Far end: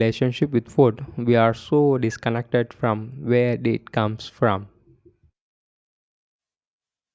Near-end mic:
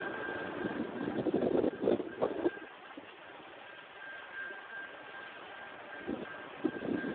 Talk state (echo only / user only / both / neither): neither